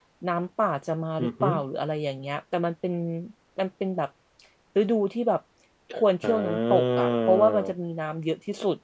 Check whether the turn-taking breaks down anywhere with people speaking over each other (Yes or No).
Yes